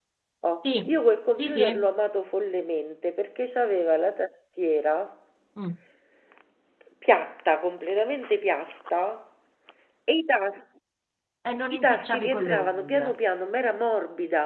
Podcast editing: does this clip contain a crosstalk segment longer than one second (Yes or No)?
Yes